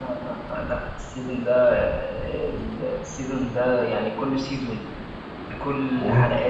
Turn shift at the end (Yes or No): No